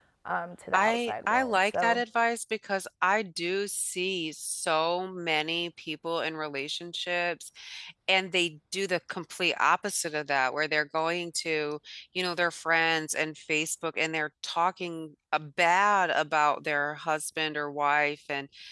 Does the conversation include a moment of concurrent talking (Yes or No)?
Yes